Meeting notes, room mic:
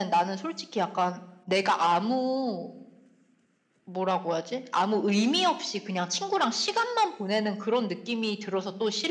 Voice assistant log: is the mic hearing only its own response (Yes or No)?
Yes